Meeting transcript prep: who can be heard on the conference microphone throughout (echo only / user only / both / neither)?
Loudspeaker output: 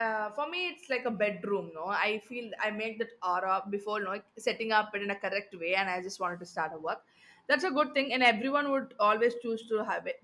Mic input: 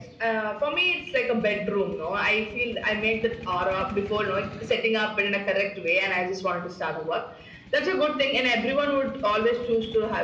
echo only